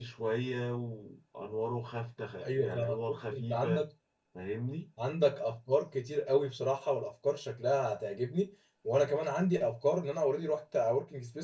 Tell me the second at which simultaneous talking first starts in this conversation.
2.4 s

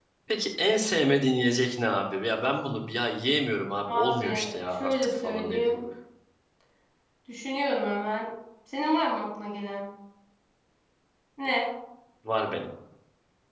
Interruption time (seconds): 3.9 s

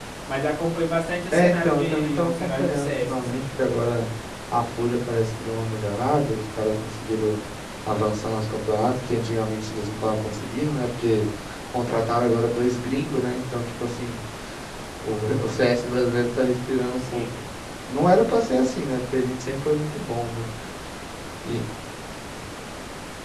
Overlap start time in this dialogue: 1.3 s

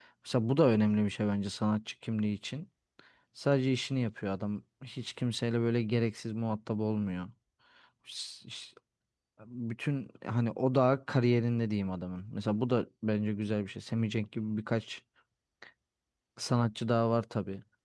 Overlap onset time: none

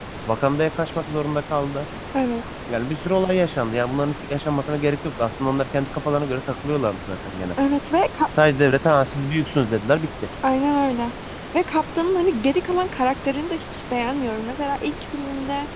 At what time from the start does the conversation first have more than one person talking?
none

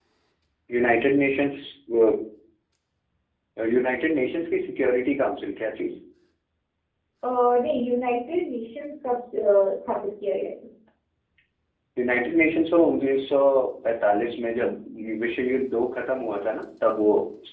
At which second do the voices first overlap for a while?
none

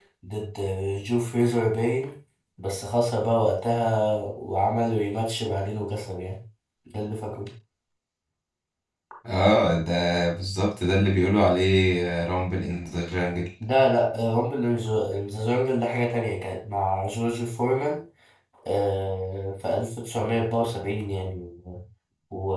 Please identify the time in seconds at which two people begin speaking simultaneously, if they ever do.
none

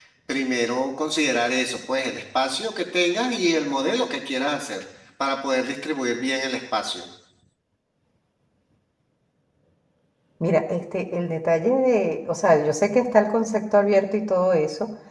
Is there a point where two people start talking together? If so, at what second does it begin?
none

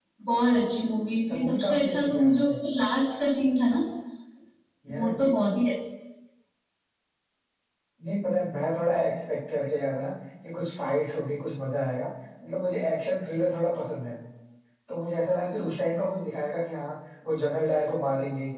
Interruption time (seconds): 1.3 s

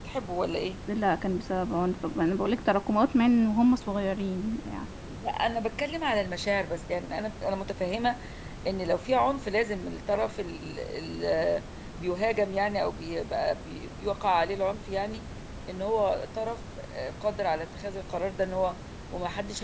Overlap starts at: none

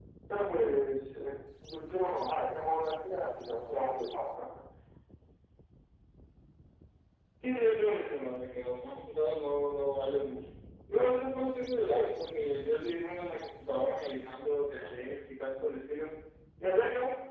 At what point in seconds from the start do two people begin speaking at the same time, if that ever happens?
none

